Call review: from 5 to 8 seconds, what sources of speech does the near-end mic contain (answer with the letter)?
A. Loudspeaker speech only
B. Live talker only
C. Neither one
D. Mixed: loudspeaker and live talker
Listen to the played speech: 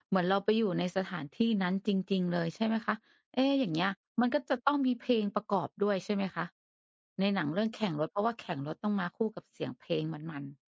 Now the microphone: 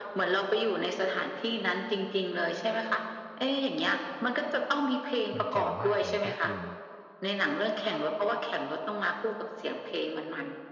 D